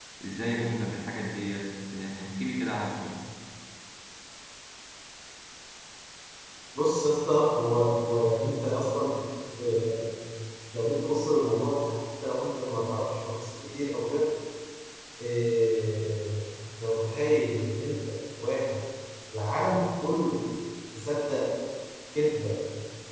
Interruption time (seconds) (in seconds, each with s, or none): none